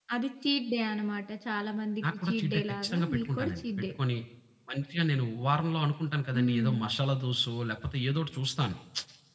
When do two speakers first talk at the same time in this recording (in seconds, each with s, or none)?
2.1 s